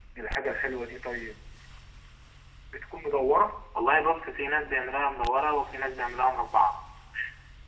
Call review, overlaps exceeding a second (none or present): none